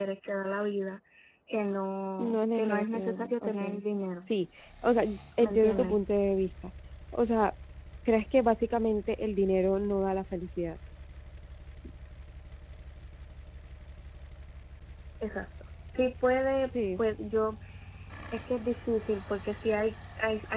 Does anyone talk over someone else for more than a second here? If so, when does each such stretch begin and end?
2.2-3.8

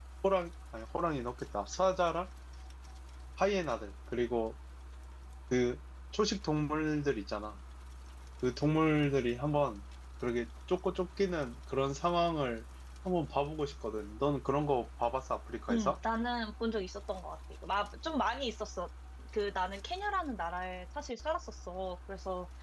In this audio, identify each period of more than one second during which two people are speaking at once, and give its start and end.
none

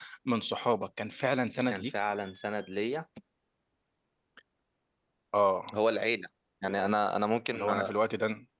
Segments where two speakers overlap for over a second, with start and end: none

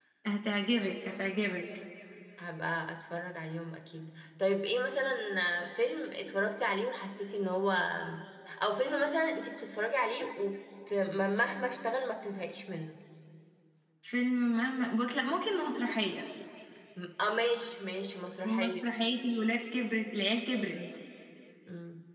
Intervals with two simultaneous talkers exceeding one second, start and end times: none

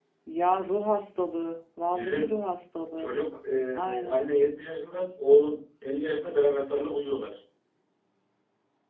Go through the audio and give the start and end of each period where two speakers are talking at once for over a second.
none

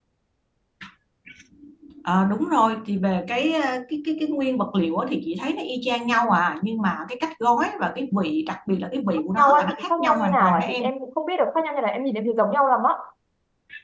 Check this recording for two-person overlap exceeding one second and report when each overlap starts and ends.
9.4-10.8

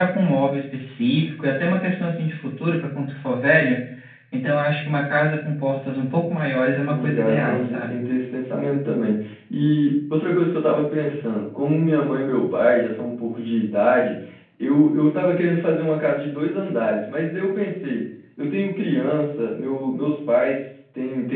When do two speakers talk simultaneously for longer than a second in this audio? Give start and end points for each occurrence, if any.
6.8-8.1

